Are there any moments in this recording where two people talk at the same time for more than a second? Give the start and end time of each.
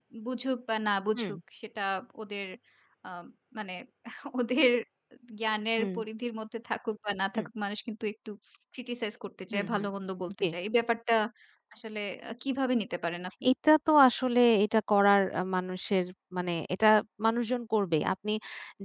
none

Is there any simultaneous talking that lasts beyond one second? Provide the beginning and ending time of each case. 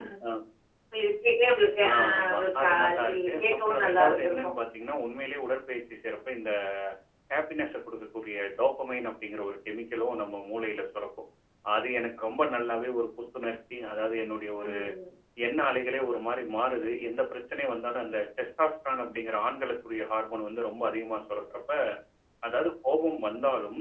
1.8-4.5

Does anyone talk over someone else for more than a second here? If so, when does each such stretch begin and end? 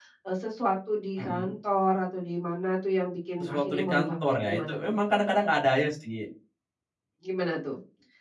3.4-5.0

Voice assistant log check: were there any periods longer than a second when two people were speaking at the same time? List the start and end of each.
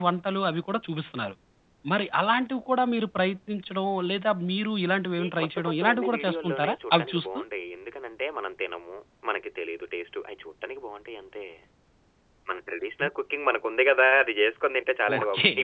5.2-7.4

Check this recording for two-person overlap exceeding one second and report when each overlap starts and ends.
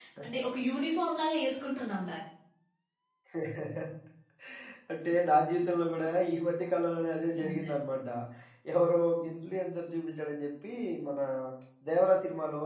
none

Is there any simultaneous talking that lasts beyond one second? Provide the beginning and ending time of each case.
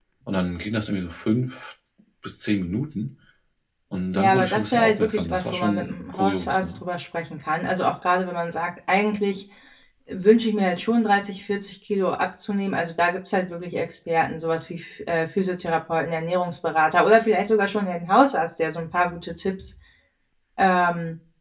4.1-6.7

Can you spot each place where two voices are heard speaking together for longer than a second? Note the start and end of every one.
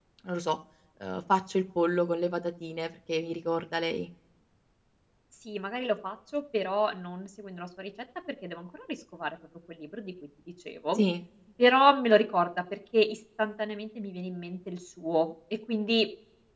none

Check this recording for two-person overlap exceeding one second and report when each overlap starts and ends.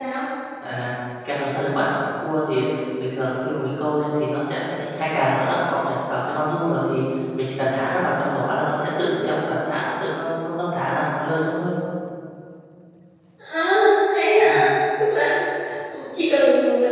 none

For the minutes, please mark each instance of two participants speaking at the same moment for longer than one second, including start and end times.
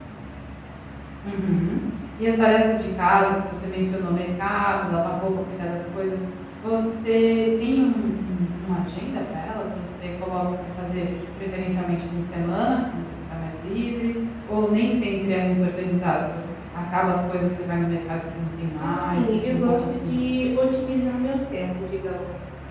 18.8-20.2

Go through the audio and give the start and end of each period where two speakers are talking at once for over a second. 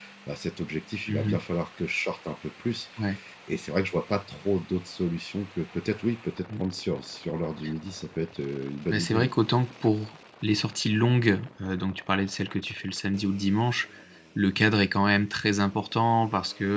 none

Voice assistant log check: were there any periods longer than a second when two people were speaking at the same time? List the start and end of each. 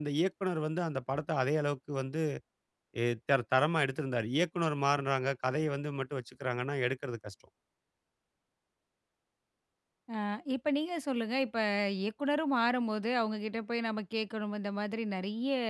none

